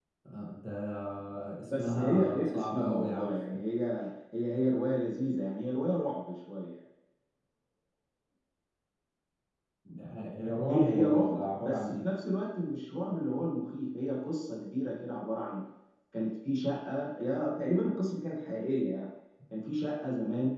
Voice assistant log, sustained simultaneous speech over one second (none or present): present